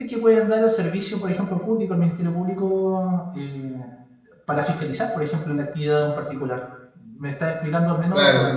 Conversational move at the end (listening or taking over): taking over